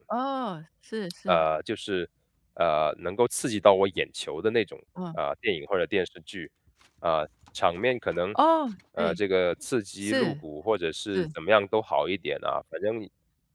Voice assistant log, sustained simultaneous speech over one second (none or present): none